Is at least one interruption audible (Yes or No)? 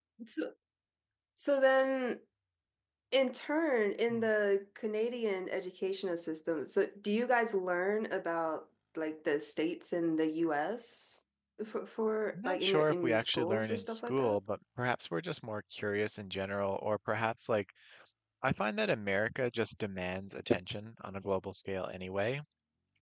Yes